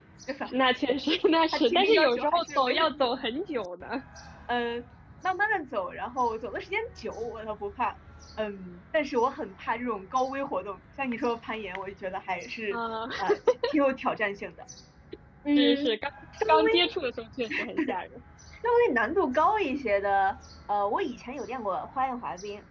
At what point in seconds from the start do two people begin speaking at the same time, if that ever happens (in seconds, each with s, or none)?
1.5 s